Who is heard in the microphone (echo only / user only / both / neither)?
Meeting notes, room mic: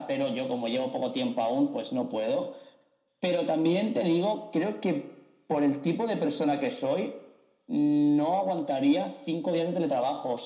echo only